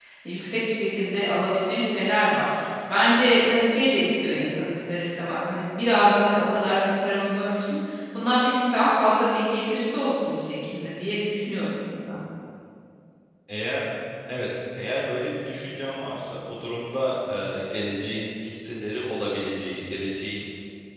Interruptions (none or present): none